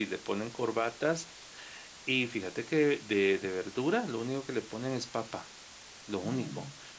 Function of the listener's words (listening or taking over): listening